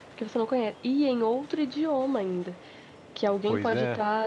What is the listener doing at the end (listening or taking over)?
listening